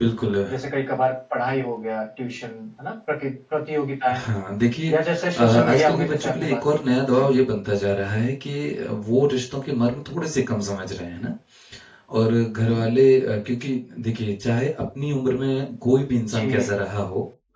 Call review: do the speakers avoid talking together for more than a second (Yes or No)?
No